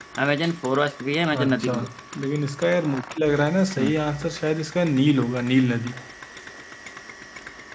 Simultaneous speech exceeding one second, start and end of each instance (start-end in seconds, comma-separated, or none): none